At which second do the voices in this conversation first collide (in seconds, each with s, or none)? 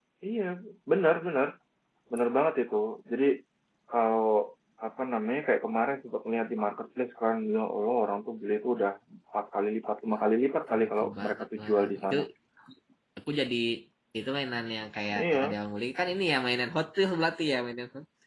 10.7 s